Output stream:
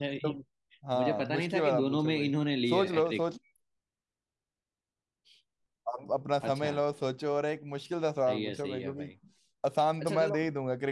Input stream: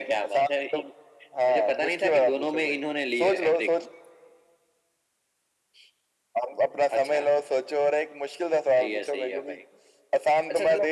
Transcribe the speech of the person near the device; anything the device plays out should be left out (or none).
none